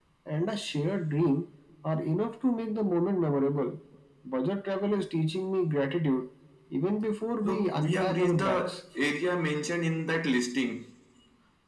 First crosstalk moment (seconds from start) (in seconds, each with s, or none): 7.4 s